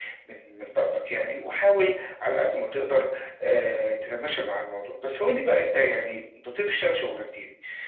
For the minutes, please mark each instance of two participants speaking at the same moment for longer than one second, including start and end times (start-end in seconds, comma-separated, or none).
none